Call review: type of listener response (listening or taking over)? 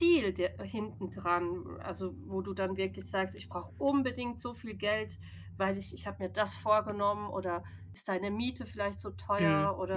taking over